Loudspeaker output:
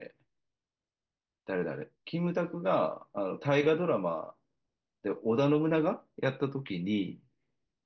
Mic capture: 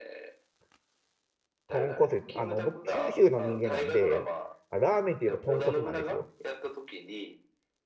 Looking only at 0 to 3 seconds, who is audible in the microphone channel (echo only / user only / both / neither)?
both